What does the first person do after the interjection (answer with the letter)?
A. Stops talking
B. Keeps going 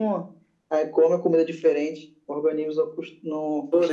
A